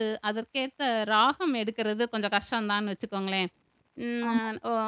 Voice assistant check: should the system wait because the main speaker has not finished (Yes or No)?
Yes